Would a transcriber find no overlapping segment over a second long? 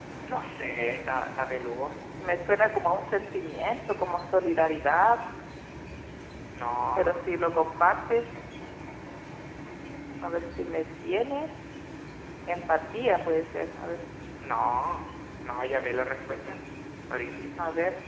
Yes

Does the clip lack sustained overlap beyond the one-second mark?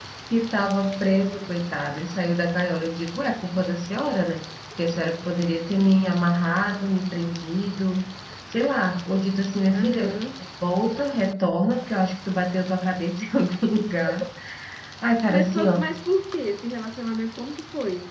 Yes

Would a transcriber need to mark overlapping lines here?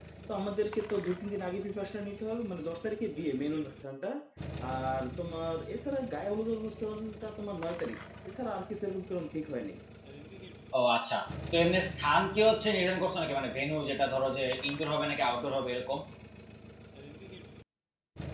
No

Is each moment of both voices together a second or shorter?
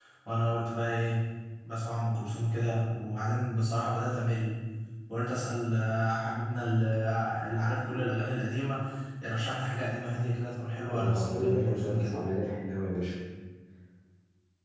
No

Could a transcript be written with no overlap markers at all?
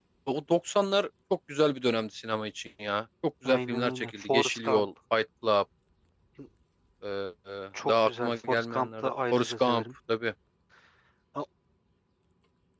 No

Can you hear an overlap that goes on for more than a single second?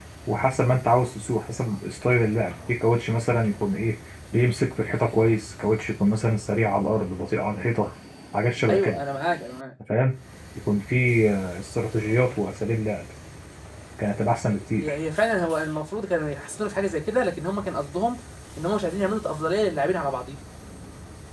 No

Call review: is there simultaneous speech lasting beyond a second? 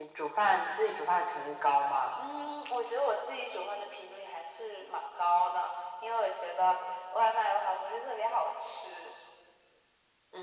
No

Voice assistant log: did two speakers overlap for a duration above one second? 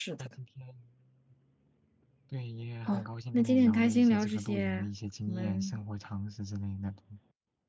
Yes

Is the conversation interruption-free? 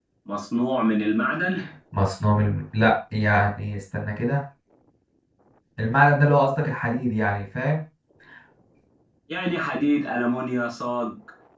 Yes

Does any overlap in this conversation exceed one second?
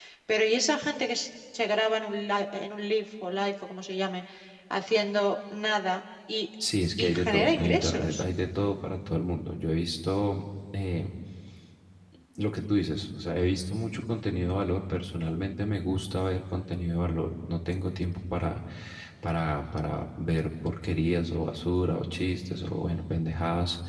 Yes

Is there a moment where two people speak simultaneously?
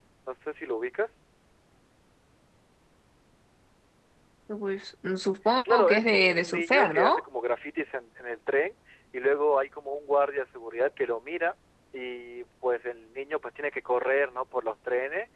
Yes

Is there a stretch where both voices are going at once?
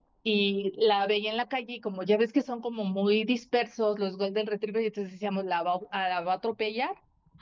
No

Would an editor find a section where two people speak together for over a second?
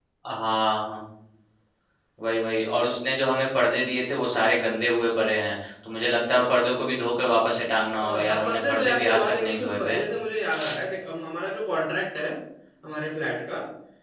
Yes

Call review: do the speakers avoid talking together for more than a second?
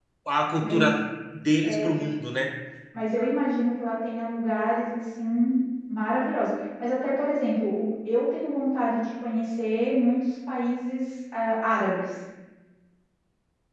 Yes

